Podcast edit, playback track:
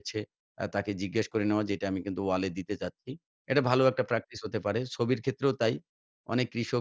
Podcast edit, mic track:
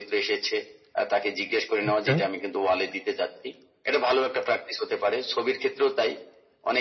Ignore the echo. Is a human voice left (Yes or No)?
Yes